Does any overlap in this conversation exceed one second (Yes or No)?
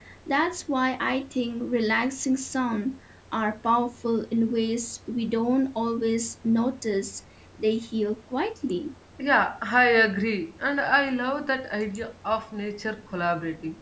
No